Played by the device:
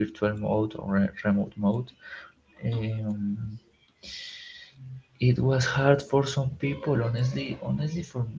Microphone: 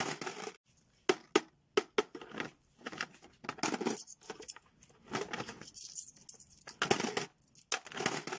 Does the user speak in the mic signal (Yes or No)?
No